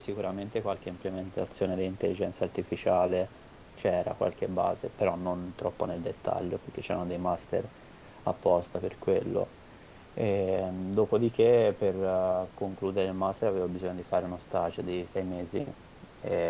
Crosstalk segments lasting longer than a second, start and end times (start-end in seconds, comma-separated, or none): none